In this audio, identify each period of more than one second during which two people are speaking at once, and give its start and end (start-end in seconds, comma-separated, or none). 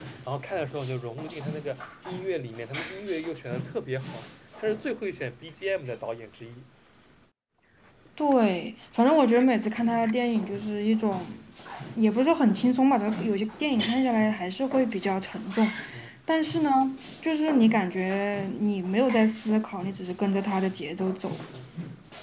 none